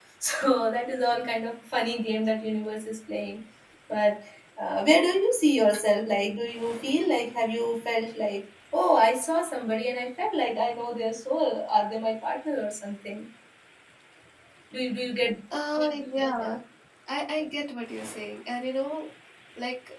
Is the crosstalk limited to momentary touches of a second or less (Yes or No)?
Yes